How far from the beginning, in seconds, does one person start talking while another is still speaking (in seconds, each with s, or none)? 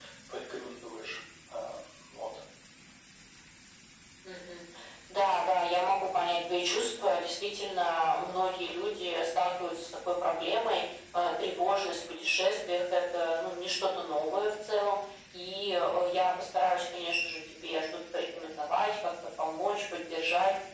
none